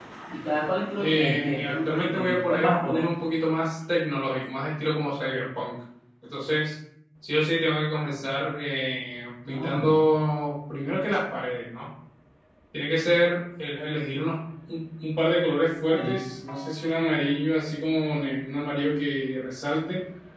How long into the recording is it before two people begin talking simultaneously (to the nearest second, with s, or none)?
1 s